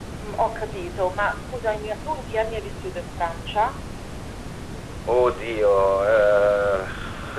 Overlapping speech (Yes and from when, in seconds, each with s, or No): No